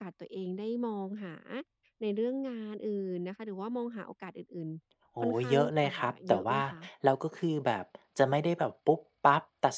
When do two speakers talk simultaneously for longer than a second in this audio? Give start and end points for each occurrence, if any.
5.2-6.6

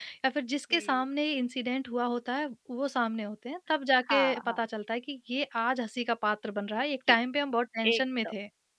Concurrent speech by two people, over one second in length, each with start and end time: none

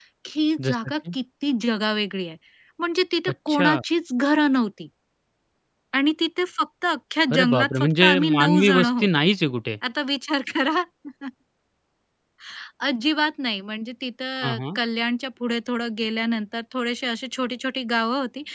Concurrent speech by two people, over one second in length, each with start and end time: 7.4-9.1

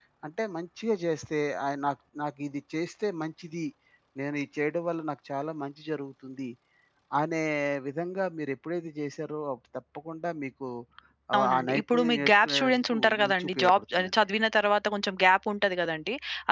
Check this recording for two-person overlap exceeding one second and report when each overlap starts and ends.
11.4-14.1

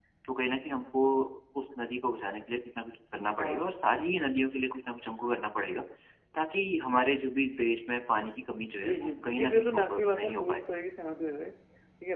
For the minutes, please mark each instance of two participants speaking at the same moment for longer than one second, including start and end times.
8.8-10.6

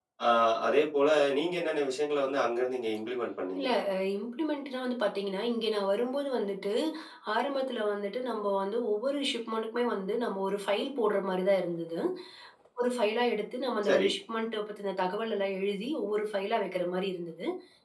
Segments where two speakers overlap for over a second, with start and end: none

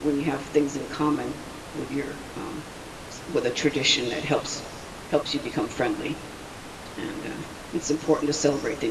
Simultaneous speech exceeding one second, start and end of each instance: none

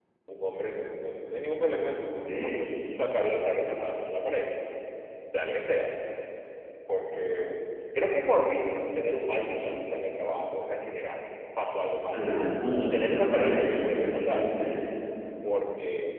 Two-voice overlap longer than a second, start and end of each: 12.8-14.5

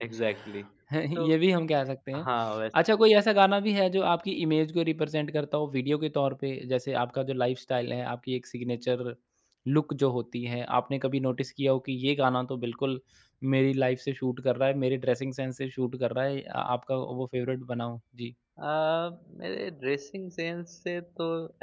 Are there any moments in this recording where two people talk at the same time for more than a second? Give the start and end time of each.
none

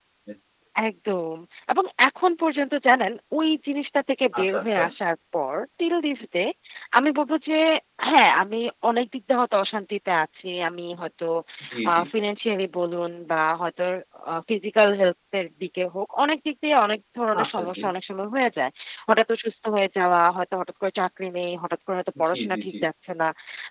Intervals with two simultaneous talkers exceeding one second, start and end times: none

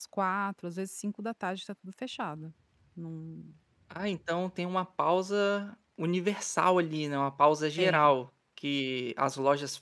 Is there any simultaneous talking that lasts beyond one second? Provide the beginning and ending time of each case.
none

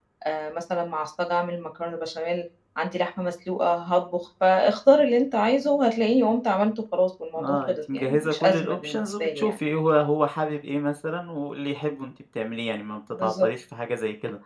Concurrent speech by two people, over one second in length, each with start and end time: 7.4-9.6

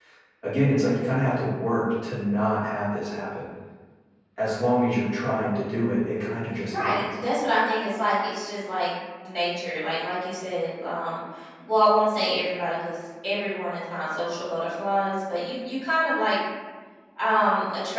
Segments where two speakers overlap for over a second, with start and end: none

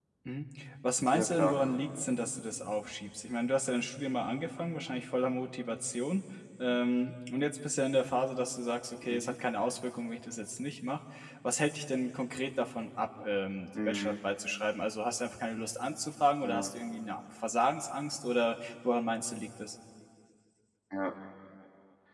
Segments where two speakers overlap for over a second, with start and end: none

